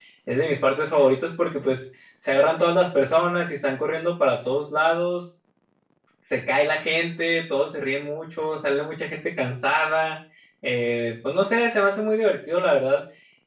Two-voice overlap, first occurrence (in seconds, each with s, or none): none